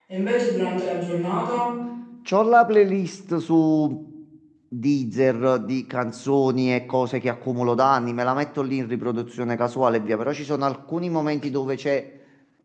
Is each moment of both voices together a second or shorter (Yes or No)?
Yes